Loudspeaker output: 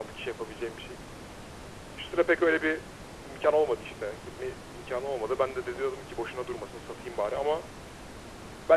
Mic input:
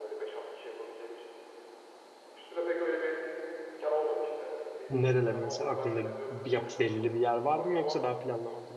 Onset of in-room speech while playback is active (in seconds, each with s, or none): 4.9 s